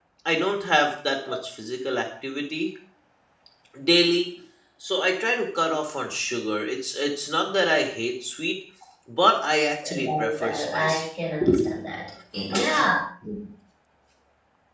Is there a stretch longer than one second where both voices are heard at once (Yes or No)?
Yes